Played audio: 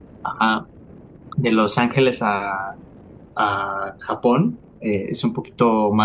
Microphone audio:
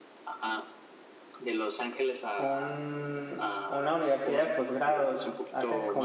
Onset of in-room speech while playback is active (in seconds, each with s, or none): 2.4 s